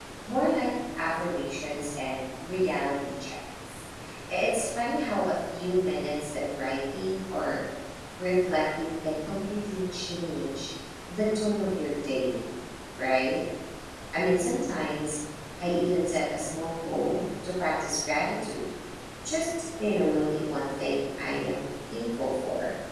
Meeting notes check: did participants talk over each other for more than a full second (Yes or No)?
No